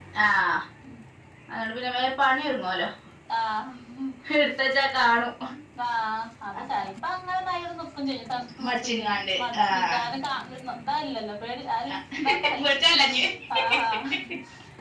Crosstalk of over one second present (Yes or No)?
Yes